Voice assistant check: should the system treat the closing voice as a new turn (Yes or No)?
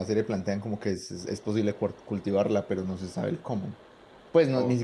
No